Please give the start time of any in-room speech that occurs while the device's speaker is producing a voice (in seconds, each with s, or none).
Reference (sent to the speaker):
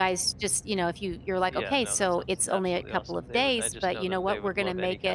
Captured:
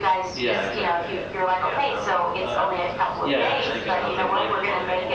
0.3 s